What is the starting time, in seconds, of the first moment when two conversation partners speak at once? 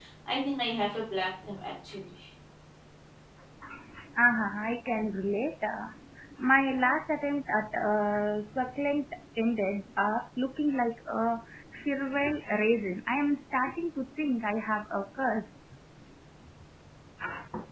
none

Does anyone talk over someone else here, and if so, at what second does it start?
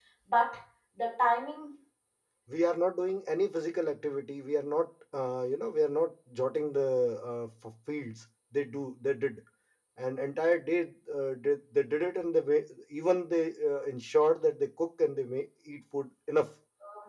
none

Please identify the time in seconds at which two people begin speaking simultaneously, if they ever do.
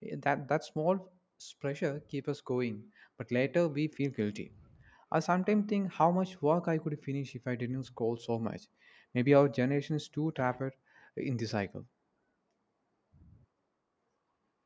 none

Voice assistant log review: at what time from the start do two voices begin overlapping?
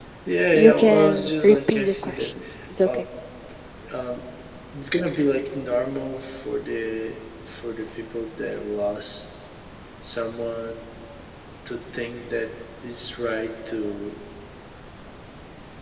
0.5 s

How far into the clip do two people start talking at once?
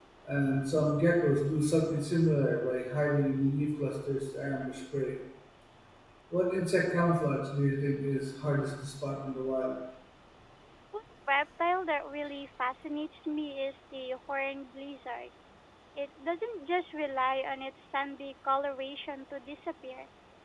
none

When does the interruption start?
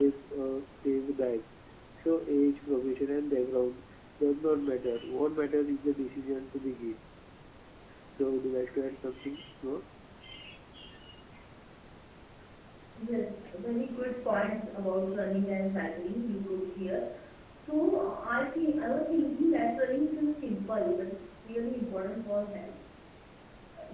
none

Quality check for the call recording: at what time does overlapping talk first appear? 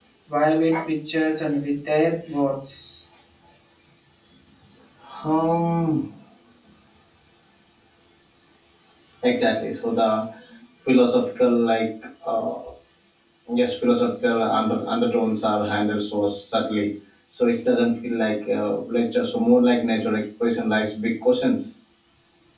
none

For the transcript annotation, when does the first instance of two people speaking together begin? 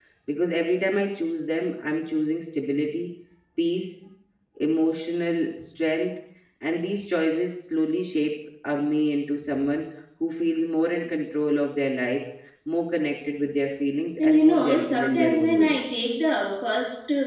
14.2 s

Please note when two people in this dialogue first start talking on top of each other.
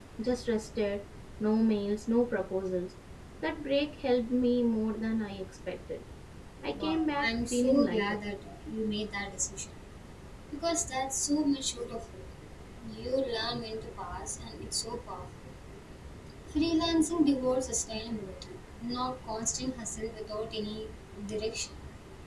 6.8 s

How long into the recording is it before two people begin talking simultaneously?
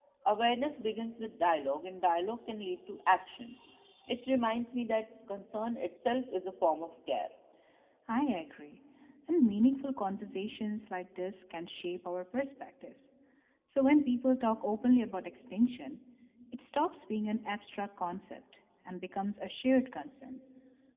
none

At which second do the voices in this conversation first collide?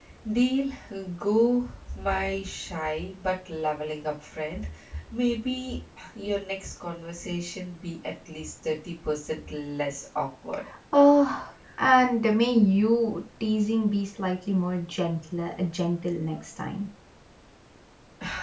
none

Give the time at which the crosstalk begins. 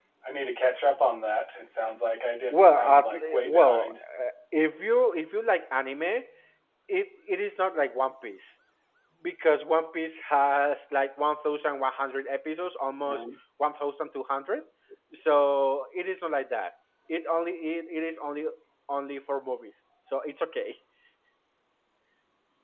2.5 s

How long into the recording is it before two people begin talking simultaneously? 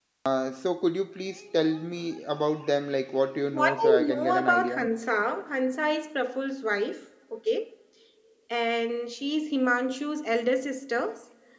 3.5 s

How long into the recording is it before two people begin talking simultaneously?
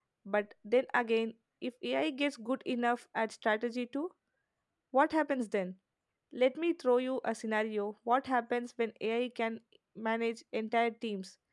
none

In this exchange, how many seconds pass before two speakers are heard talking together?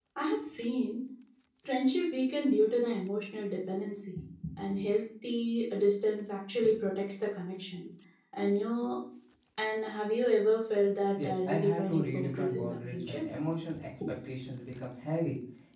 11.2 s

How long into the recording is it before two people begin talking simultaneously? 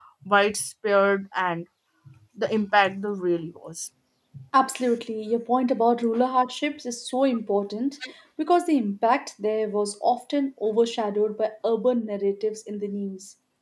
none

